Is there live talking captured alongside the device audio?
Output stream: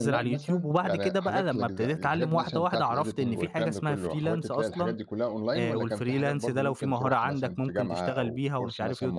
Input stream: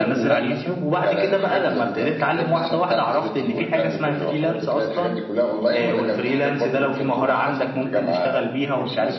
No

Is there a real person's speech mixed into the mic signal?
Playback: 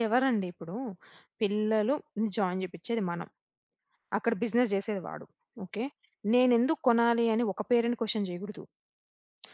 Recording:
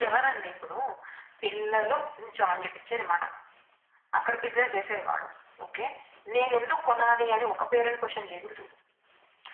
No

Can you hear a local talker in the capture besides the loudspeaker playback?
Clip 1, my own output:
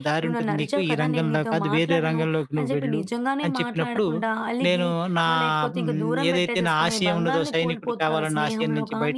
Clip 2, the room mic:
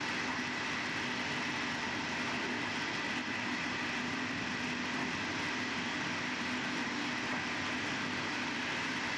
No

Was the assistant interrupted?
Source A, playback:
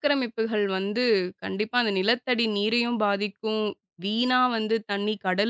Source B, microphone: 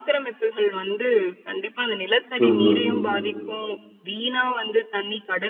Yes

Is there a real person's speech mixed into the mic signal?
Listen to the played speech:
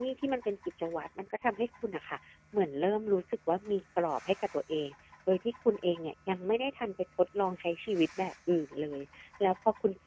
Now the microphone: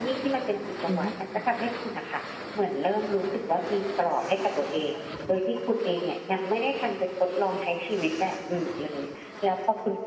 Yes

